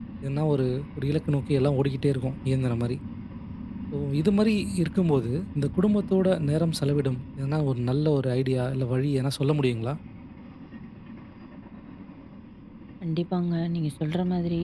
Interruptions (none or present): none